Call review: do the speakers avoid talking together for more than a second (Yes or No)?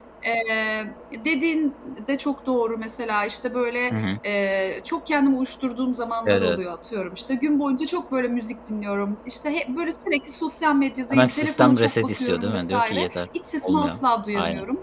No